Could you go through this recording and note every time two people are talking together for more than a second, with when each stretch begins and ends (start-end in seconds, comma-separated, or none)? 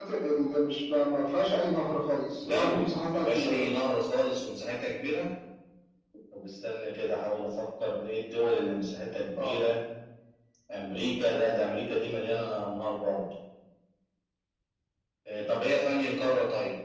2.4-3.7